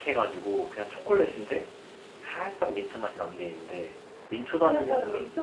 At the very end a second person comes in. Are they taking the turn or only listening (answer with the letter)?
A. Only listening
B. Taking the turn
B